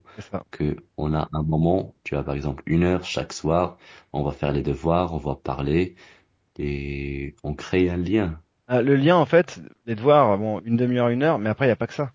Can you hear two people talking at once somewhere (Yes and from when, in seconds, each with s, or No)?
No